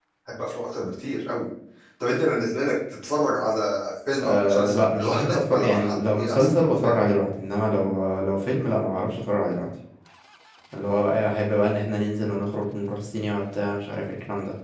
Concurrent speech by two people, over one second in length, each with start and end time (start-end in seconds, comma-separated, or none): 4.2-7.0